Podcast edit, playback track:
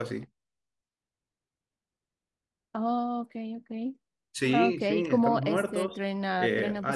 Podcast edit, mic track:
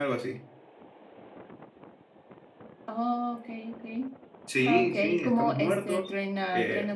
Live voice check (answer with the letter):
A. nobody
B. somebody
A